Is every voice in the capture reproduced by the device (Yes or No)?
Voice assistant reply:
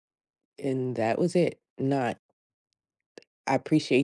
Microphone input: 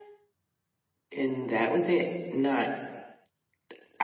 Yes